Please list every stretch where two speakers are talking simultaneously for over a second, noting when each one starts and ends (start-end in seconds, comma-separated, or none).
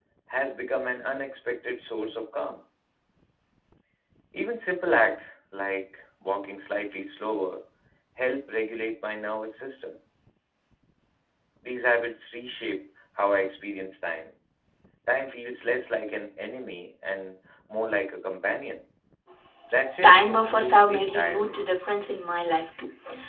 20.0-21.6